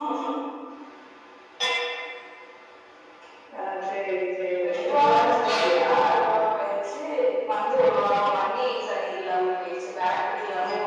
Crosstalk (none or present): present